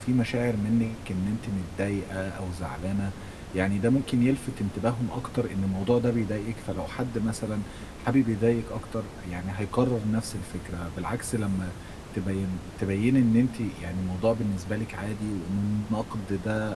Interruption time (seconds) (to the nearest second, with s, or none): none